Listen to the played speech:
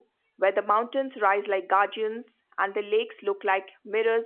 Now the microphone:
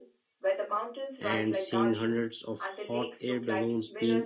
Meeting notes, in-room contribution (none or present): present